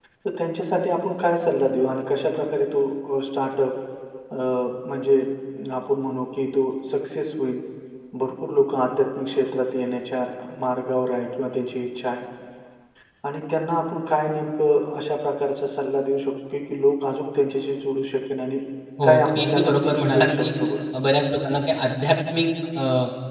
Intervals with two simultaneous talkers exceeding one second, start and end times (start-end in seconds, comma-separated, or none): 19.0-20.4